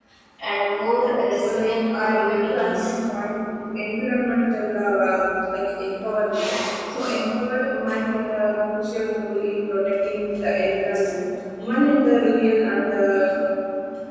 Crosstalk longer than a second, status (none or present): present